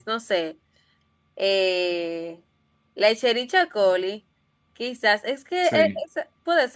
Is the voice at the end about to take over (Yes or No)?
No